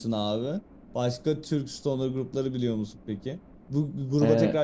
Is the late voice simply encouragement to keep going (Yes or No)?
Yes